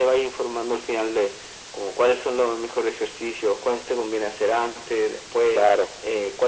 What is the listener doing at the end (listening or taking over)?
listening